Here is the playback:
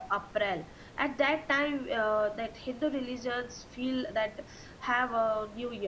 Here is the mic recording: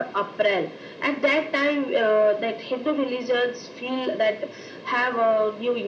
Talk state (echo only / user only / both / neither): echo only